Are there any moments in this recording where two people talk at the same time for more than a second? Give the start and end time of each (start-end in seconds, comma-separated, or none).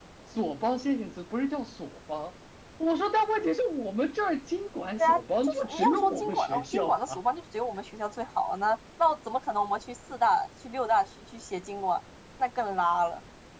5.0-7.2